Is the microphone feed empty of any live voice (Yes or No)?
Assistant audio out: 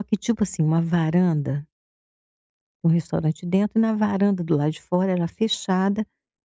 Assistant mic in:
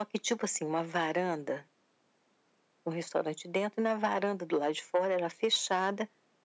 Yes